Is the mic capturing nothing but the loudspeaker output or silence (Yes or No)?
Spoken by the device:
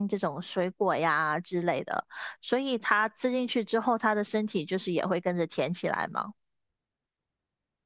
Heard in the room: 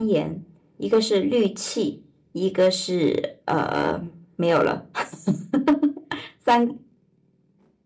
No